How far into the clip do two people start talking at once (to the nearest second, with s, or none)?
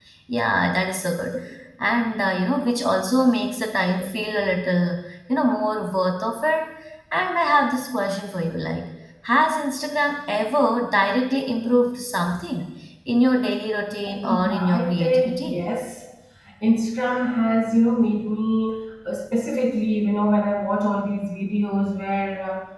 14 s